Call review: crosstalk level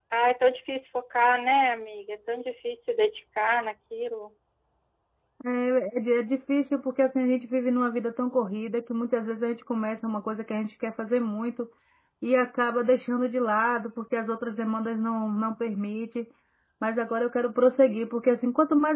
none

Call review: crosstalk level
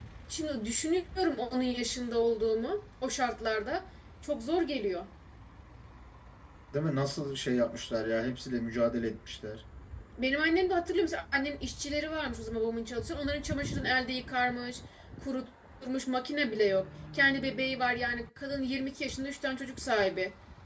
none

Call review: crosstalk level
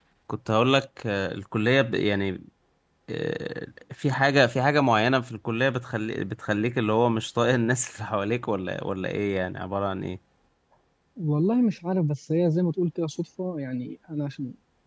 none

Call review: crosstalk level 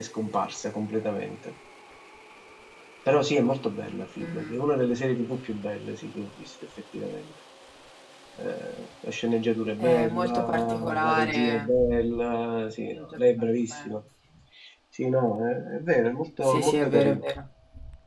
present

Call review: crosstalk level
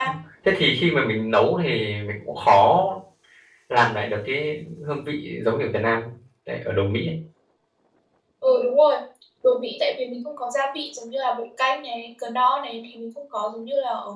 none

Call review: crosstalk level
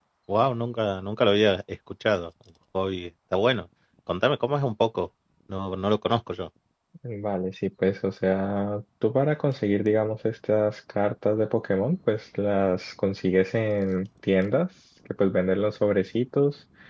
none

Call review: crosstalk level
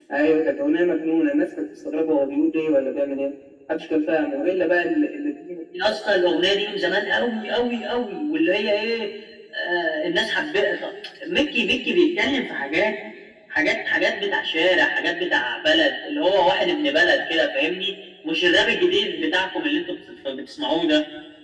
none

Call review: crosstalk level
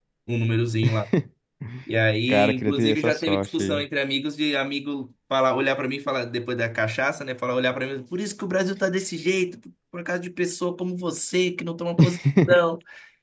present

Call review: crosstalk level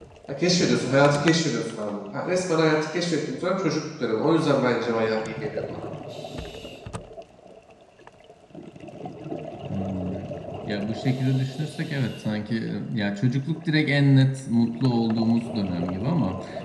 none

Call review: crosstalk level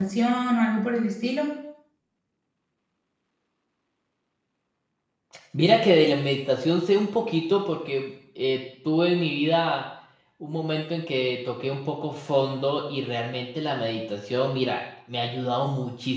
none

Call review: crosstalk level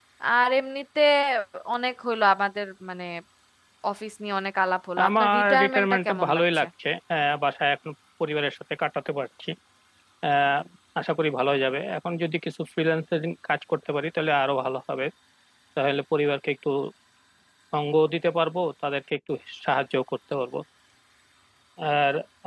present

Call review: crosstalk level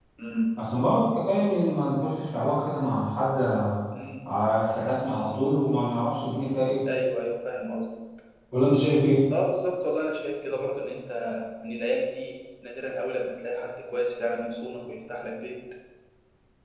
none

